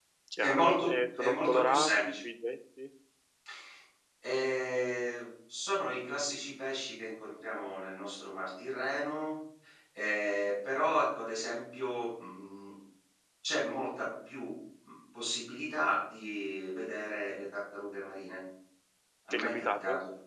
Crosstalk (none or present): present